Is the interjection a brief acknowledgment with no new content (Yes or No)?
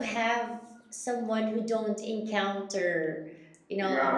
No